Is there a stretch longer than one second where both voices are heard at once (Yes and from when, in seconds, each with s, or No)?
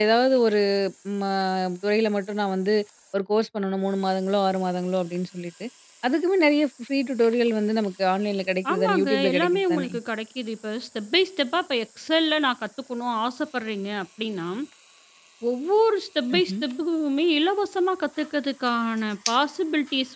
Yes, from 8.7 s